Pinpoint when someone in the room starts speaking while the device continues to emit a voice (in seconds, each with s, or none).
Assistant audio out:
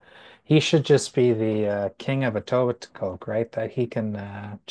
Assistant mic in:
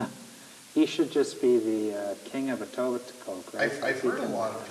3.6 s